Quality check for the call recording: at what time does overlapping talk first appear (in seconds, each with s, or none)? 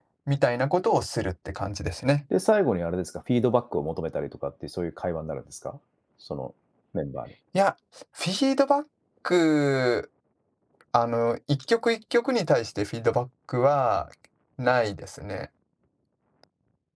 none